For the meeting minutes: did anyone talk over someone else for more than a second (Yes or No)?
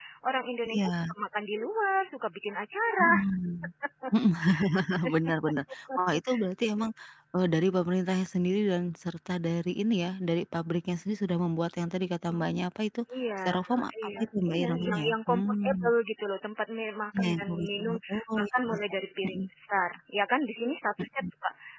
Yes